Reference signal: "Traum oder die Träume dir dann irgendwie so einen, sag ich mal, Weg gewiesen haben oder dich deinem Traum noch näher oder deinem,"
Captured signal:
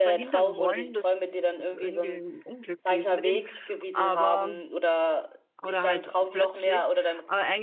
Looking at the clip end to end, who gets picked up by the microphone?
both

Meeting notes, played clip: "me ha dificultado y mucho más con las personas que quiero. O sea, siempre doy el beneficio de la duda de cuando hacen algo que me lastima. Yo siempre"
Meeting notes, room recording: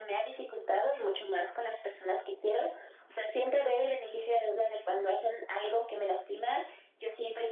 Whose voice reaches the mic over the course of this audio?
echo only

